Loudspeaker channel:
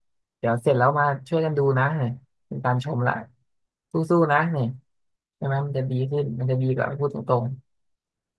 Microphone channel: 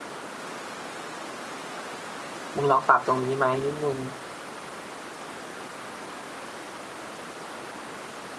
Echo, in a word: none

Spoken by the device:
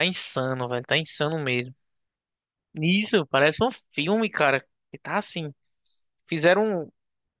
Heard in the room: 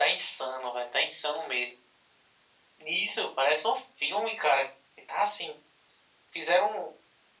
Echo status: present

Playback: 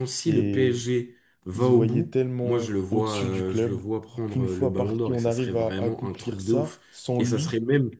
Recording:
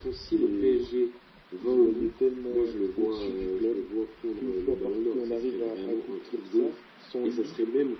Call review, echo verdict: present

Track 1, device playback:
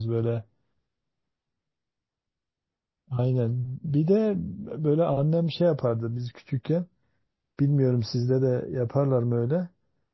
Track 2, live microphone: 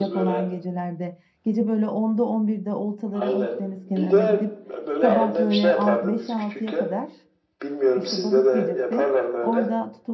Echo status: present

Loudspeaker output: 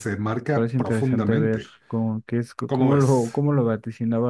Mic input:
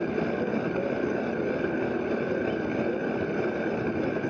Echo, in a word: none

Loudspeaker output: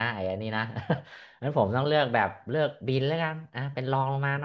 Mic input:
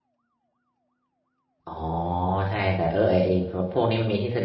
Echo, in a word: none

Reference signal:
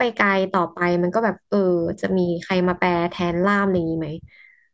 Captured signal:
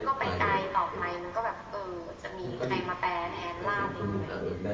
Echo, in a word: present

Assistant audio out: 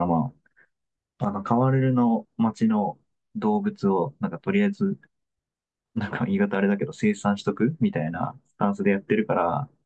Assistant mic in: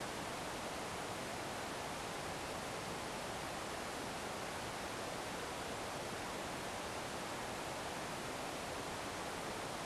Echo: none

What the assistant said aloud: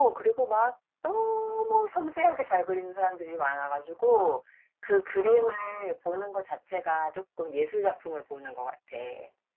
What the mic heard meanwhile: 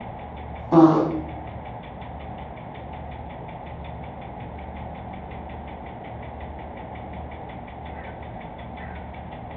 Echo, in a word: none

